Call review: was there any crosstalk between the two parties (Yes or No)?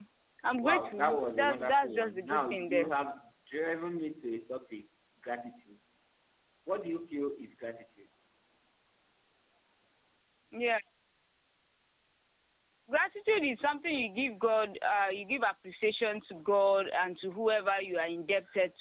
Yes